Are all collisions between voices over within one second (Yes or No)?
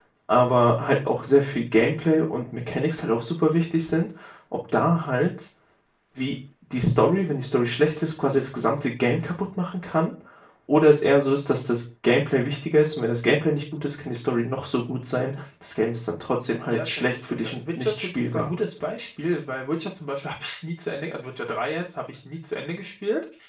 No